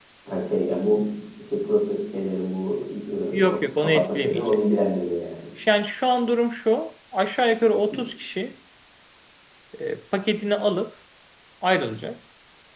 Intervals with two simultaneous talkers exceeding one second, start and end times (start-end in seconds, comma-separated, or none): 3.3-4.6